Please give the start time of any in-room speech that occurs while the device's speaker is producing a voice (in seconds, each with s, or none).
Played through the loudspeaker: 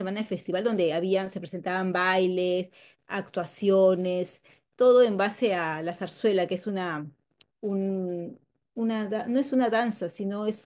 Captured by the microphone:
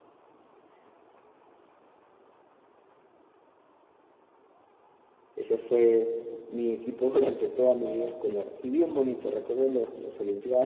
5.3 s